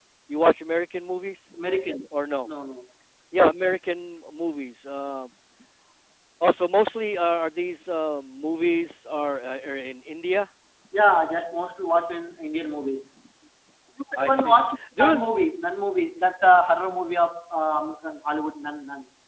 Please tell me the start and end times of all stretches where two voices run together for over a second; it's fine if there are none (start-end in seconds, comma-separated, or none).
none